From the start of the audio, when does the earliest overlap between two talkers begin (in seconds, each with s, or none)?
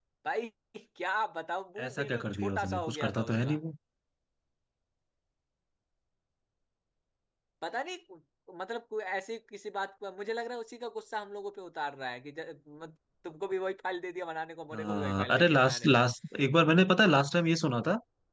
1.8 s